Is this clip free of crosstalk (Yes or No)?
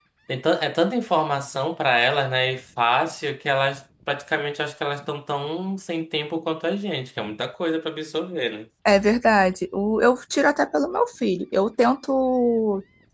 Yes